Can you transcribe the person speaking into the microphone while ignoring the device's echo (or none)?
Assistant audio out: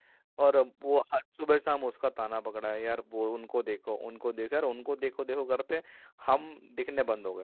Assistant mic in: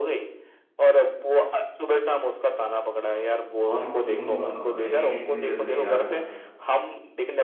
और क्यों नहीं मारना भाई इतनी जल्दी यार